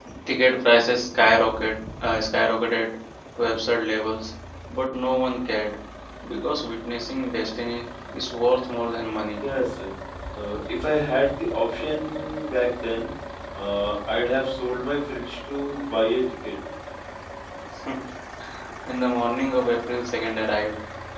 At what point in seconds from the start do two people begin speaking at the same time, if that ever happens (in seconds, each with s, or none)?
none